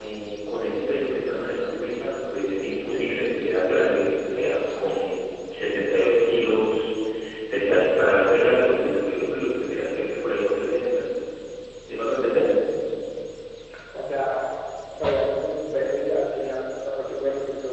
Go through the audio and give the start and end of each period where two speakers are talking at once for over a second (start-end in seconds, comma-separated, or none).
none